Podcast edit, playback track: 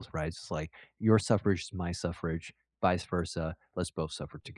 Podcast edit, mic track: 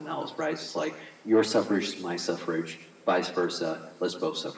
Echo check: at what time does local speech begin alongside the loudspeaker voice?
none

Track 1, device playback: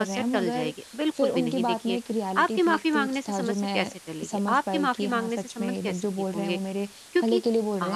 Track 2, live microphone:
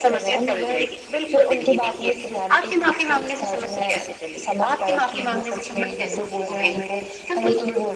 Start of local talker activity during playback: none

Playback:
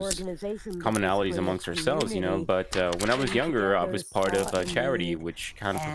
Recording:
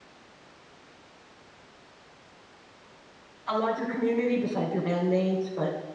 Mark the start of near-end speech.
3.5 s

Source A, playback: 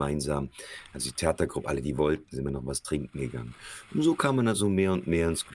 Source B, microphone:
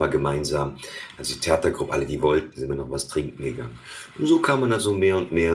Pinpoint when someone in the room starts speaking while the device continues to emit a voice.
none

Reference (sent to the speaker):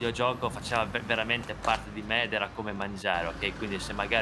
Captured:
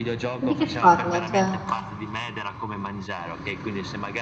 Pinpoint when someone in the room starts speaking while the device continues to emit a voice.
0.4 s

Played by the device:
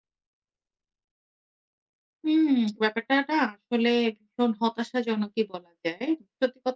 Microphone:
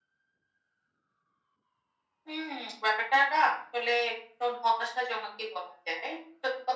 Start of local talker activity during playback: none

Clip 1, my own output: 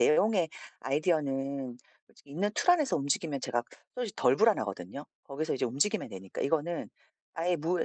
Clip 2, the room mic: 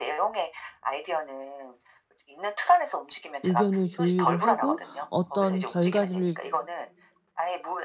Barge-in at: 3.4 s

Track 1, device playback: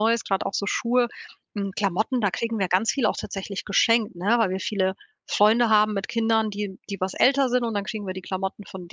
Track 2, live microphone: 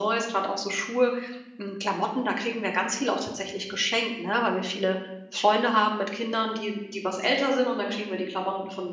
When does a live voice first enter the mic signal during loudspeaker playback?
none

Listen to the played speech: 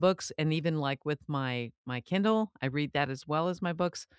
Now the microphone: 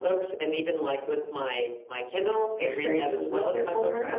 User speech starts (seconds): 2.6 s

